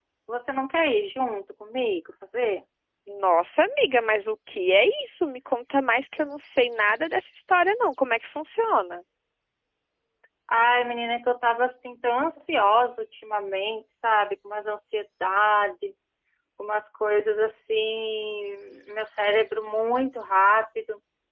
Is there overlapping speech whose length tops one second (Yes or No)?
No